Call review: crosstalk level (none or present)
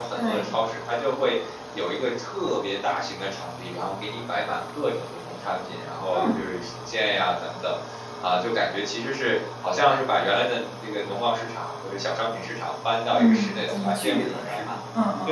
present